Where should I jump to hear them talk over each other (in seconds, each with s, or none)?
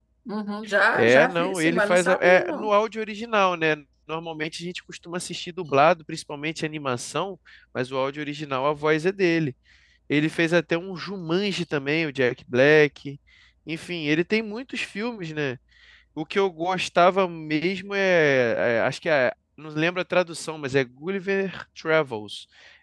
0.9 s